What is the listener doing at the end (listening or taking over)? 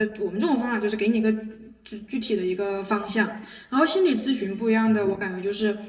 listening